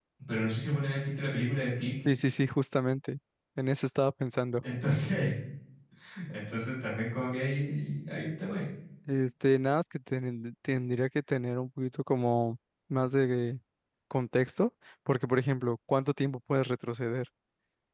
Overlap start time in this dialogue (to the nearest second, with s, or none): none